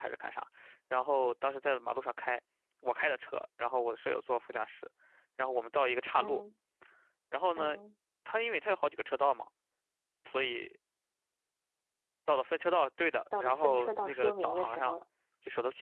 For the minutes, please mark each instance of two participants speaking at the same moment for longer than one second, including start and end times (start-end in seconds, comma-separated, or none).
13.4-15.0